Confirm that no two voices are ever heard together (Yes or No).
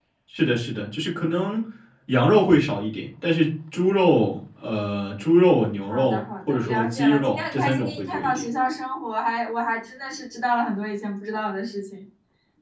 No